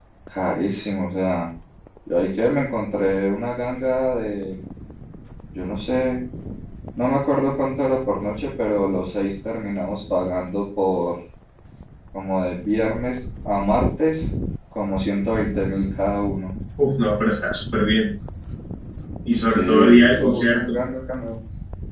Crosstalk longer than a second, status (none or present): present